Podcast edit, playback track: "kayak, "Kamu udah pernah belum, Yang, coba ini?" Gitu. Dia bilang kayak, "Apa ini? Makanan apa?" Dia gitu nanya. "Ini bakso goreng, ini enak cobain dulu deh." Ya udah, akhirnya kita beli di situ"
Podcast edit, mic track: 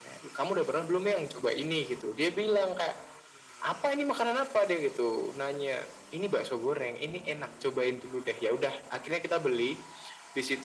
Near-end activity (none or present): none